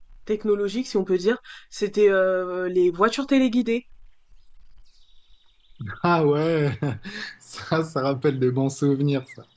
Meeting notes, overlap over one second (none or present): none